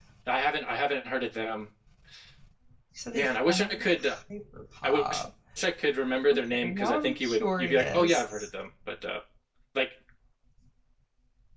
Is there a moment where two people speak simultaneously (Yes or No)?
Yes